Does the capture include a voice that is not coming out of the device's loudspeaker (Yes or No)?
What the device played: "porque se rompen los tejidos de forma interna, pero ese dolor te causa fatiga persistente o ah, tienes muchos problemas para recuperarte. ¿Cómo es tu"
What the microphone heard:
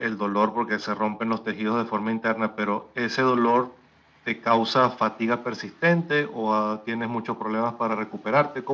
No